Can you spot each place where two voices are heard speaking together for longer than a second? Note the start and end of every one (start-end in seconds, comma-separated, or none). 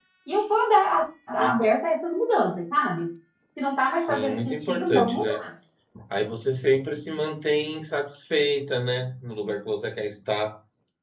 3.9-5.3